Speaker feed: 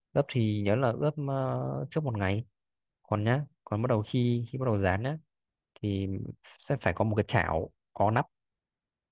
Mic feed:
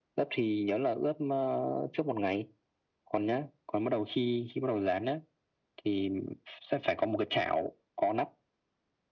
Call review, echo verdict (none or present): present